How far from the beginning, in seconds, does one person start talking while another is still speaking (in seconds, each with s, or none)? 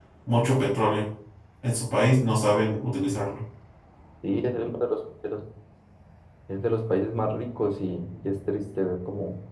none